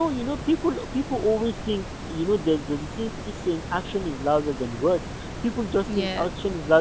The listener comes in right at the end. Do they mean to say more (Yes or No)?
No